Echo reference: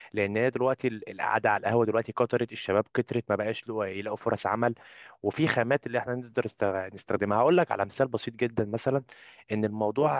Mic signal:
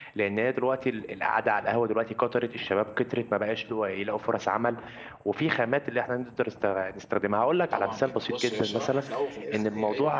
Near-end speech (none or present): present